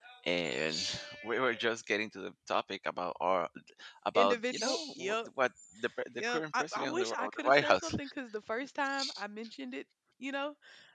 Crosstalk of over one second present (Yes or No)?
Yes